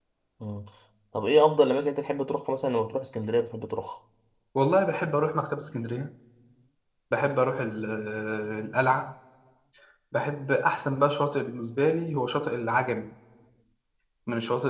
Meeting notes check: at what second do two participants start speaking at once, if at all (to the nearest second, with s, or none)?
none